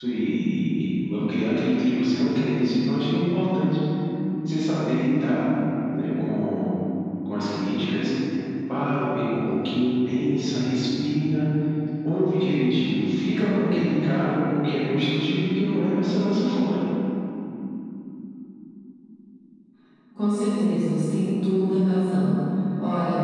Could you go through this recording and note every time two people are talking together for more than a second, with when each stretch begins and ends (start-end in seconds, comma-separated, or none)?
none